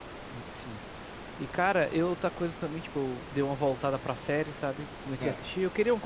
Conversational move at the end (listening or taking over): listening